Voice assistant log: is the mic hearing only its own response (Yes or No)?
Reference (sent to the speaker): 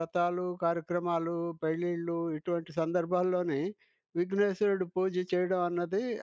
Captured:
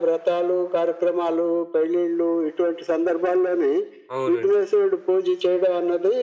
No